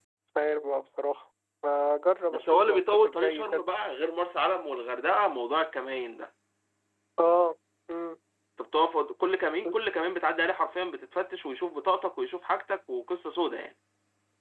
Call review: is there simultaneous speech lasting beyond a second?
Yes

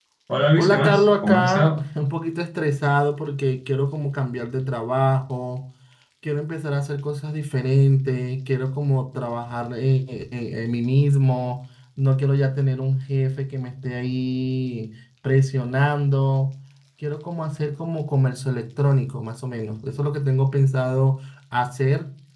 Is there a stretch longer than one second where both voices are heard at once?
Yes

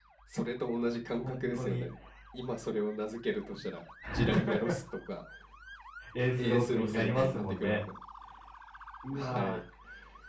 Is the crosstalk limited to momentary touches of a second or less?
No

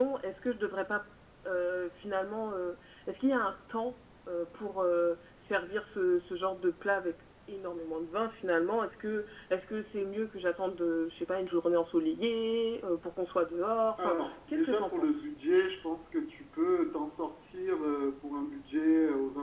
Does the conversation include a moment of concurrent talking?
Yes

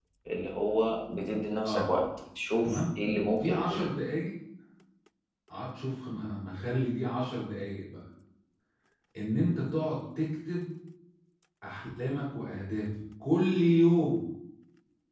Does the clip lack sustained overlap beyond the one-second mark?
Yes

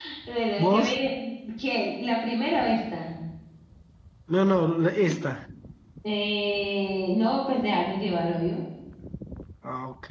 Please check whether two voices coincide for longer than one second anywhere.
No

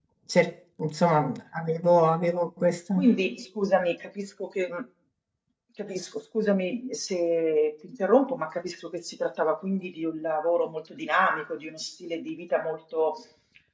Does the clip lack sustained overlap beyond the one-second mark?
Yes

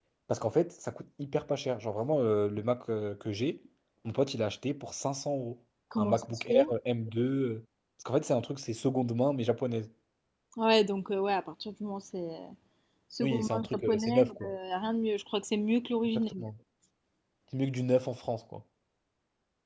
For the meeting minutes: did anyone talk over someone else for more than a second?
Yes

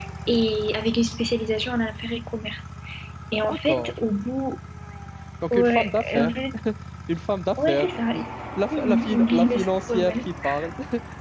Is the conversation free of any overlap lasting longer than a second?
No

